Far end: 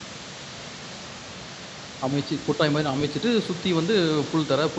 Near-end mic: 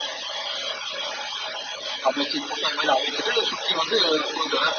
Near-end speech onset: none

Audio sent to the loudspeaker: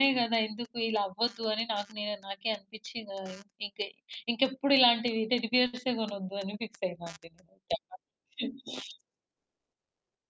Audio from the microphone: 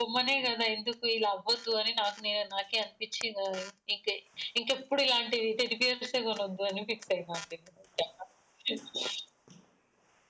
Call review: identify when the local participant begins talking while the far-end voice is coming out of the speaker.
none

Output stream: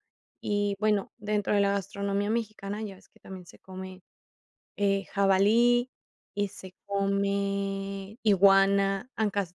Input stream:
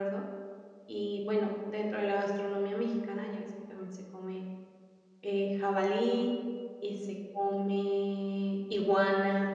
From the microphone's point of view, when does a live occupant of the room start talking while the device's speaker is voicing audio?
none

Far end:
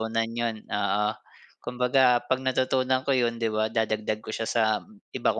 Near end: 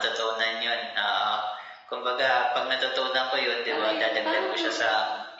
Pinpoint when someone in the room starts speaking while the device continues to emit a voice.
4 s

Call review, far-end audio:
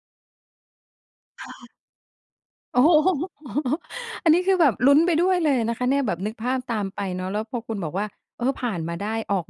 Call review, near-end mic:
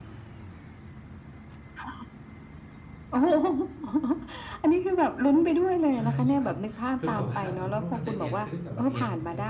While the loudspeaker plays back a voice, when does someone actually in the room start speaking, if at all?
6 s

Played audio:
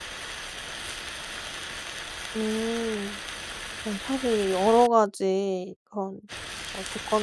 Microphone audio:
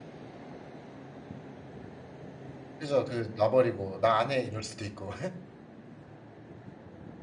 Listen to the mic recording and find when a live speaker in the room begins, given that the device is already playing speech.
3 s

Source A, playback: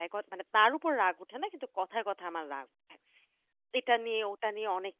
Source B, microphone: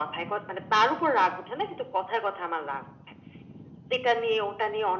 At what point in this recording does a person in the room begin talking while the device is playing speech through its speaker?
none

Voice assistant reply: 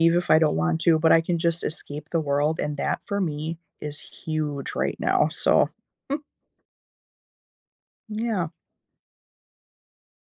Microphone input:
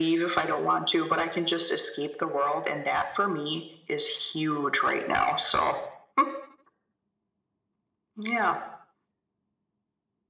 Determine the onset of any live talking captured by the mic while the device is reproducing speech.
none

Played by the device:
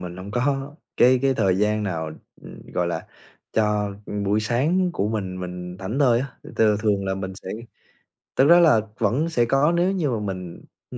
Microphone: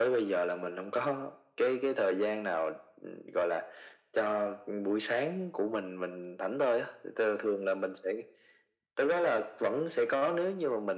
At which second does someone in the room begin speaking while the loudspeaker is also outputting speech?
none

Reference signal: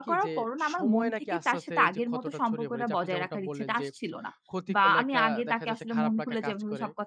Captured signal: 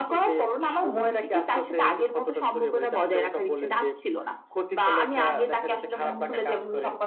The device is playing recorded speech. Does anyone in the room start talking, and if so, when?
none

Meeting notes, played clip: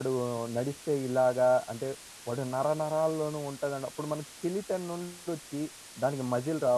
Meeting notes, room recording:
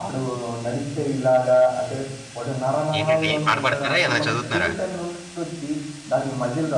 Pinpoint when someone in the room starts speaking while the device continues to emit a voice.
3 s

